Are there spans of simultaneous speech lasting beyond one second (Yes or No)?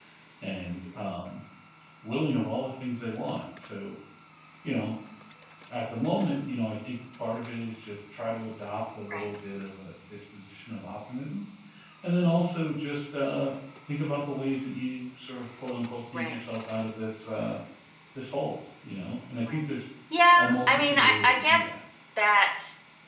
Yes